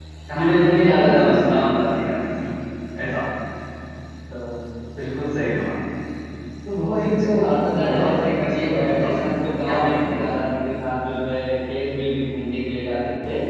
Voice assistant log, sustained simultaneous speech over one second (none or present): present